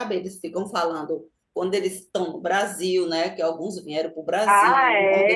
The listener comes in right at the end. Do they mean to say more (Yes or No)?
Yes